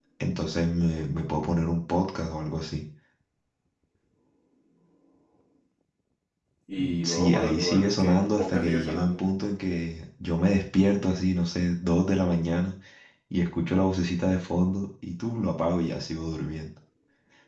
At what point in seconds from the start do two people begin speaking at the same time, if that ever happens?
6.8 s

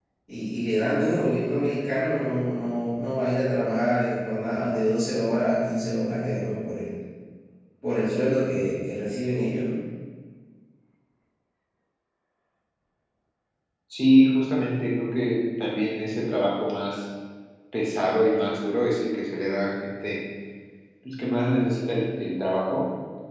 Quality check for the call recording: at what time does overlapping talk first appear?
none

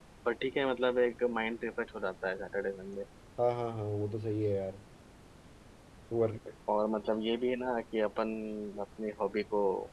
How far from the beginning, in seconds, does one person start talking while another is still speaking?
none

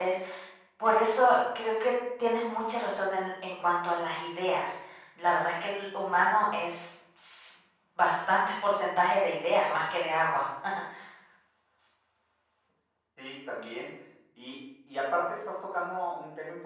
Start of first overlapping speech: none

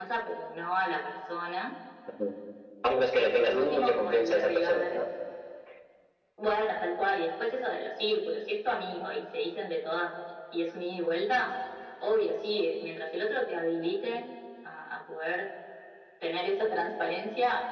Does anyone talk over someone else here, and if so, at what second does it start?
3.1 s

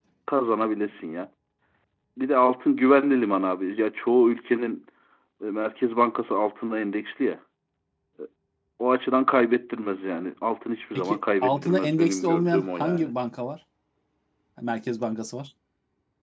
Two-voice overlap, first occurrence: 10.9 s

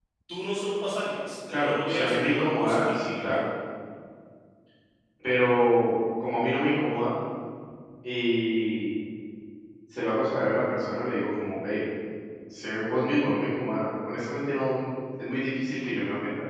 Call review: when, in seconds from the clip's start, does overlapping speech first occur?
1.5 s

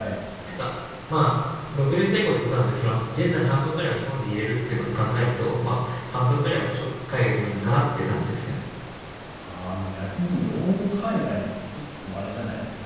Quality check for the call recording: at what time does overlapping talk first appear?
none

